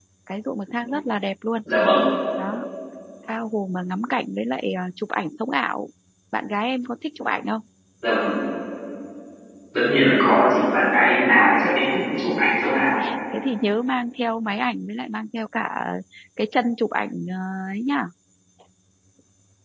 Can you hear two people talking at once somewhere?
No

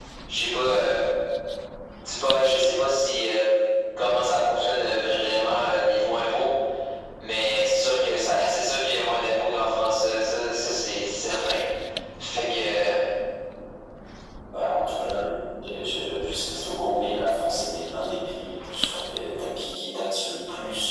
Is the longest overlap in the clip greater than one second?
No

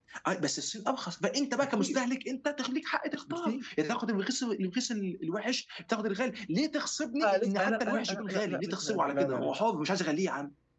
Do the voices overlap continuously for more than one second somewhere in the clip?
Yes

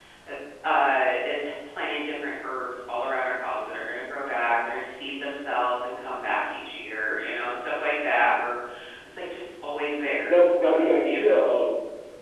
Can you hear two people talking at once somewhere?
Yes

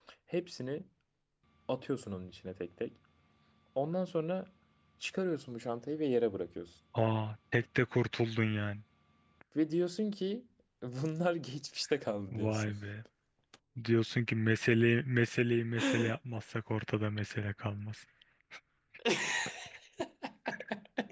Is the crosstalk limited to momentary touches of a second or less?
Yes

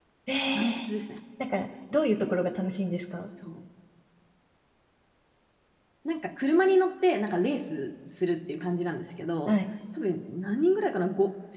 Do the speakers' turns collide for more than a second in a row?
No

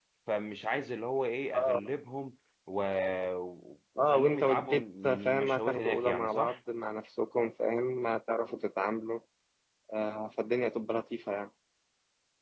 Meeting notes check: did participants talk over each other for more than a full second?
Yes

